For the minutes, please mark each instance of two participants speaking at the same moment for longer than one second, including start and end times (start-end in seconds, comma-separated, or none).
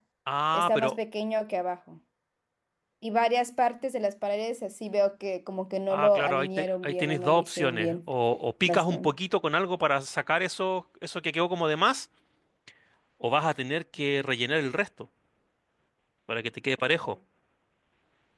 5.9-8.0